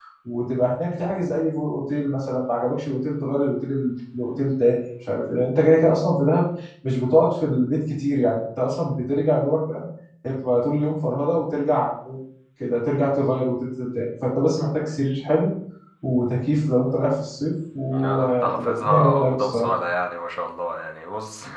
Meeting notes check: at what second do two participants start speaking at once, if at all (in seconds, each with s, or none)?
17.9 s